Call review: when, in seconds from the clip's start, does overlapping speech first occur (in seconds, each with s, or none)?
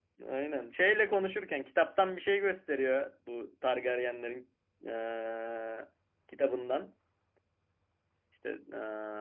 none